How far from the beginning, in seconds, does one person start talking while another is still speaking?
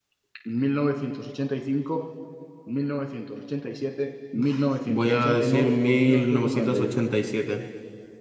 4.9 s

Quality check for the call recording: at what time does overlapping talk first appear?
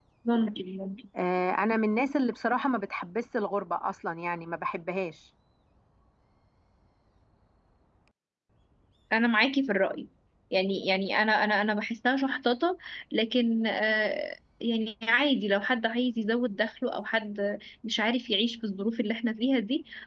none

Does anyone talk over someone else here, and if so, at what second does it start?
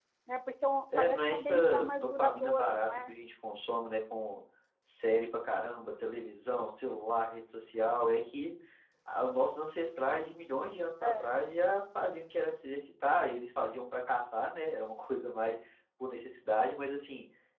1.0 s

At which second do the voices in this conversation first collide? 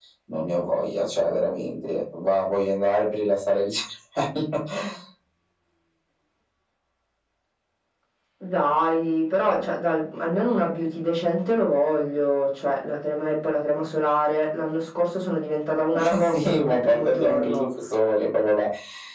15.9 s

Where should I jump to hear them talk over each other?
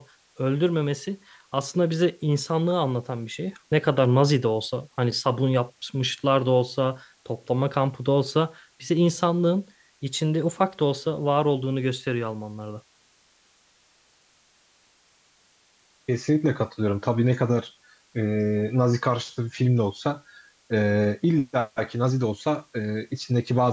none

